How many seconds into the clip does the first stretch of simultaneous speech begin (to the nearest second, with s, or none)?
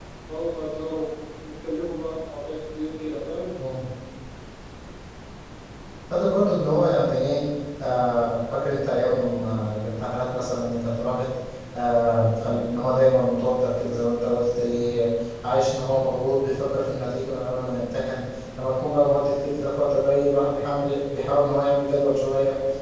none